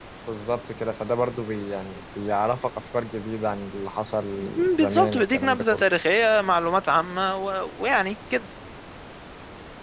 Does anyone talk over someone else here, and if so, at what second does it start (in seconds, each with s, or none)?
4.4 s